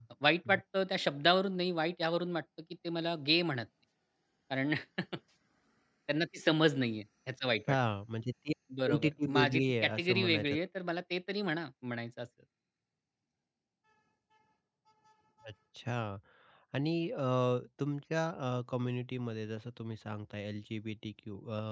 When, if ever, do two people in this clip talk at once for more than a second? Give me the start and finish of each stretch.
8.8-10.6

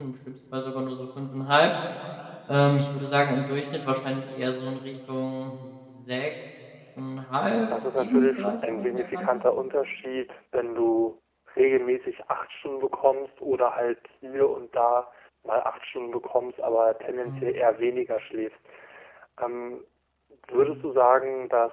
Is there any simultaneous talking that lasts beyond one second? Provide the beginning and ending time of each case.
8.0-9.3

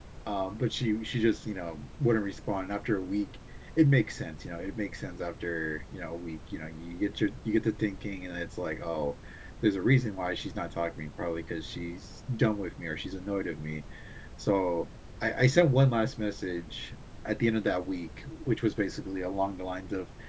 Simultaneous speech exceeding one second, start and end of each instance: none

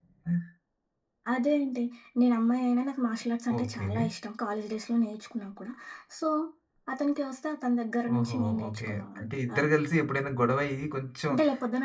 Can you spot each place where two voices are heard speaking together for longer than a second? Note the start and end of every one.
8.2-9.7

